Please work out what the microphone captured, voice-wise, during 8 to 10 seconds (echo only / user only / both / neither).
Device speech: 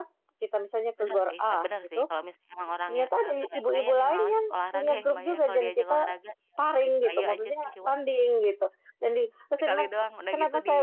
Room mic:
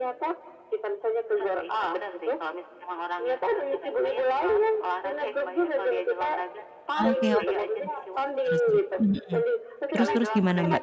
both